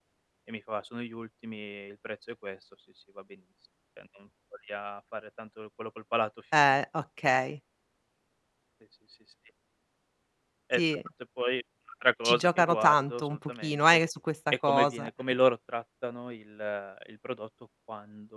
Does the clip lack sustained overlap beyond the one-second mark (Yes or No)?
No